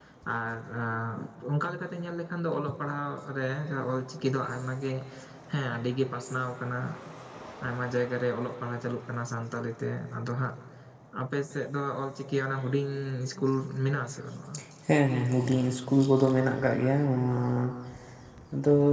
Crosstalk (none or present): none